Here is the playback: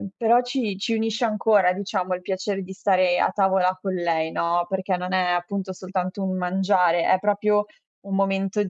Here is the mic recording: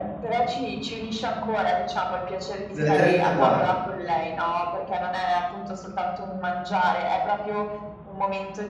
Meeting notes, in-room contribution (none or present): present